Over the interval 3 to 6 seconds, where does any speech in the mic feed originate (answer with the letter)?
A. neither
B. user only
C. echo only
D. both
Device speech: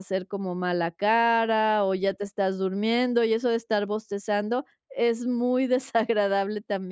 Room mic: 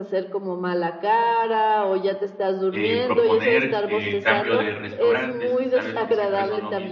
D